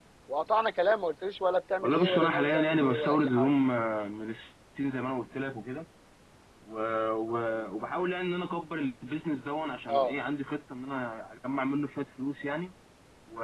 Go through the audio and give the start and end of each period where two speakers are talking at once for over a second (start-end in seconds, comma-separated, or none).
1.8-3.5